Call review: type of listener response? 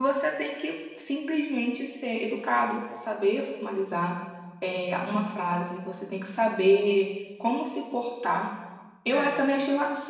listening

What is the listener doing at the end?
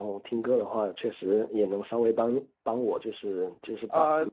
listening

